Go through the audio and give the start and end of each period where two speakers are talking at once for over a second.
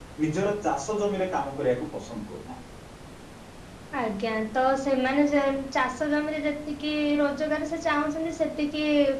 none

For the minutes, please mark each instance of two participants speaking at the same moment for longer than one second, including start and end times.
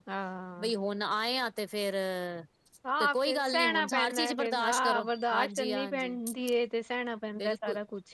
3.0-6.1

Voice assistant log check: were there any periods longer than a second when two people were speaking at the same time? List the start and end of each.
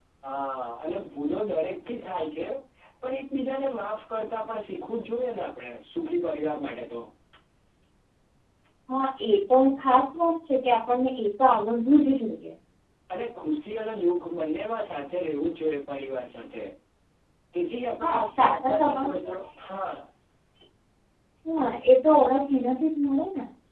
18.0-19.4

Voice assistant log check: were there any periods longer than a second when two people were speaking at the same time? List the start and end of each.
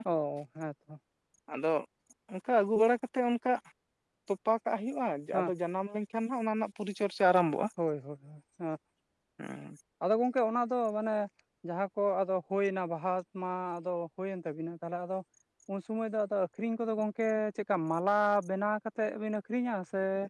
none

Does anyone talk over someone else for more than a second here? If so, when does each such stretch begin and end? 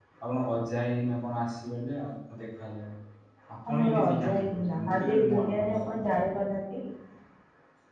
3.7-6.0

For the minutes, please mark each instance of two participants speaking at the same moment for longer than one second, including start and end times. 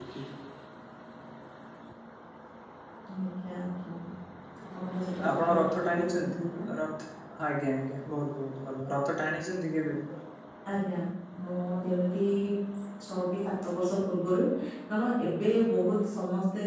5.3-6.6

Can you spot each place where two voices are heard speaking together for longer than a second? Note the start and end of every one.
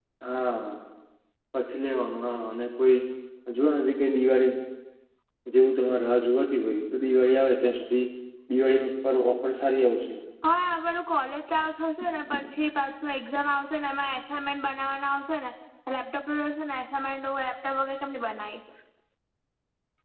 none

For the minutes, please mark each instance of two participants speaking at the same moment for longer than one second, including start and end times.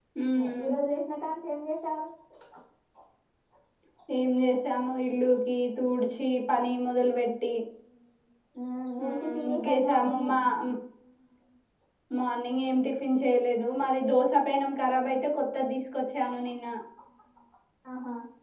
9.0-10.3

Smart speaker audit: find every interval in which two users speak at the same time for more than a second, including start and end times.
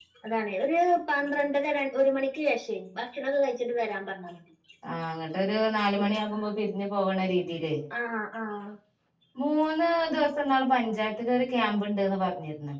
none

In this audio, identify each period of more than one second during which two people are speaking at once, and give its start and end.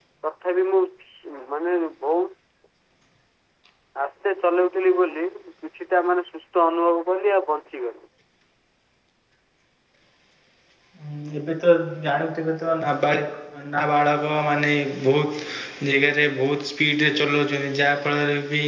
none

